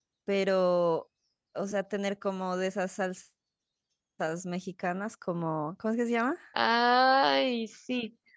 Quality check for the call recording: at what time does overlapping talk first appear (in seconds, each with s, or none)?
none